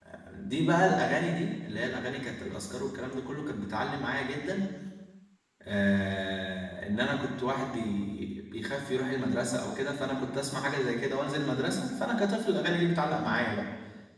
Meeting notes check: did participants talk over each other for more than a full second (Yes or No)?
No